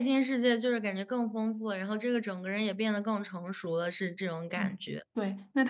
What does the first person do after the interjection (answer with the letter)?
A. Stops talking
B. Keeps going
A